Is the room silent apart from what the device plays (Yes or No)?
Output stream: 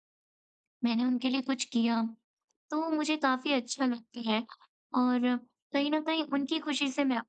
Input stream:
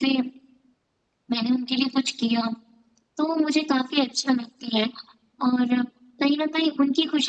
Yes